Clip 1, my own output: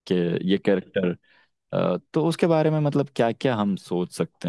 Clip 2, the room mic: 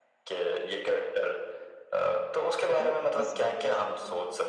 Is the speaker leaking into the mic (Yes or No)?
Yes